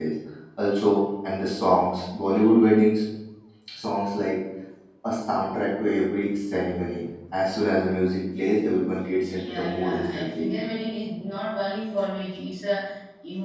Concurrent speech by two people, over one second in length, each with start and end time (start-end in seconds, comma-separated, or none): 9.3-10.5